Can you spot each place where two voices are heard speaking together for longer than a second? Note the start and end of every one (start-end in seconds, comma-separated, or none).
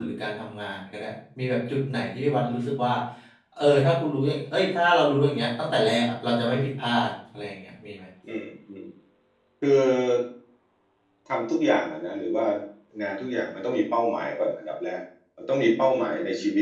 none